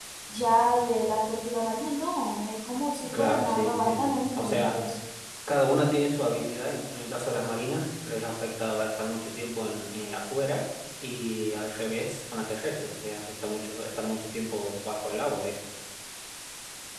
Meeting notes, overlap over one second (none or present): present